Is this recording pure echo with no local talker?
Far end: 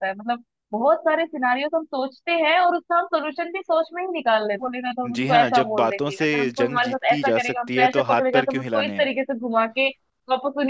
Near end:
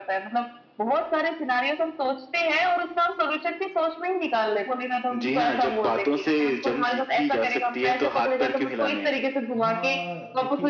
No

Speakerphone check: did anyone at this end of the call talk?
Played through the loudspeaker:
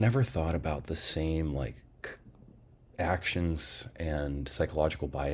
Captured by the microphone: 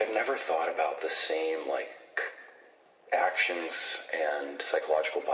No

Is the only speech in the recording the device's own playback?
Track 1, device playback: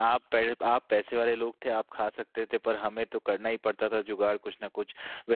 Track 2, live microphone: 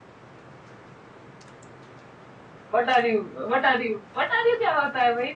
No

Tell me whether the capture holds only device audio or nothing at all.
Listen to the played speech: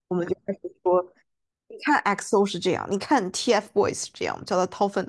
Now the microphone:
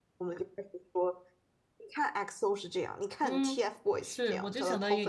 No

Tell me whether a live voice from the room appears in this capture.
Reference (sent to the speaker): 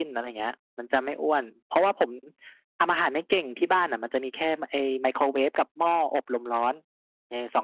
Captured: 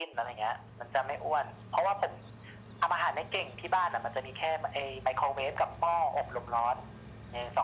No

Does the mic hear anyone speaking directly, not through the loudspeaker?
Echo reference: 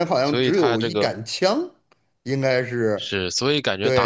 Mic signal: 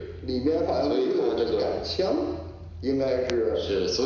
No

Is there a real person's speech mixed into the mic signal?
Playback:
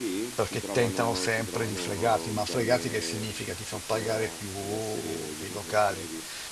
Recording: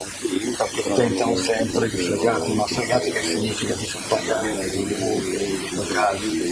Yes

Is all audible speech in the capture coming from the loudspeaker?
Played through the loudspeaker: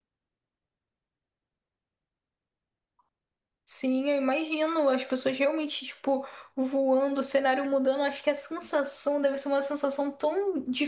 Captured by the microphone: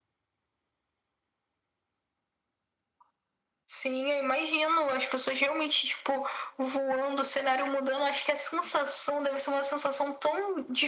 Yes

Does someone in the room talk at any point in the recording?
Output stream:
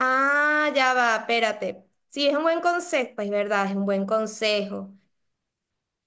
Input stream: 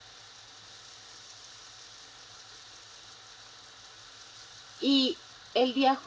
Yes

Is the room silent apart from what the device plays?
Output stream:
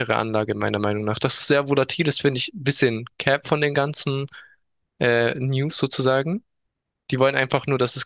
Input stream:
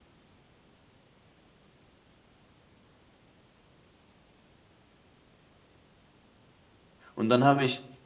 No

